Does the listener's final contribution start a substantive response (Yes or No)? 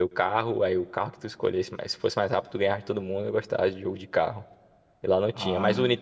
No